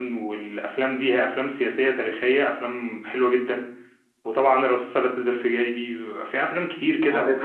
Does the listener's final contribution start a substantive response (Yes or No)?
Yes